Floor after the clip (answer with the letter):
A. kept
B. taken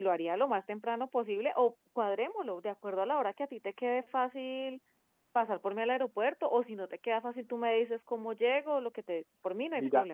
B